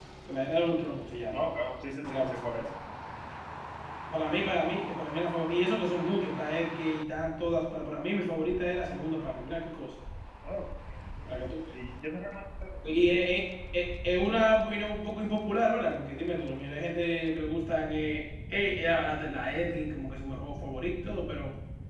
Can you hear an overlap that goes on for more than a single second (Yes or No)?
No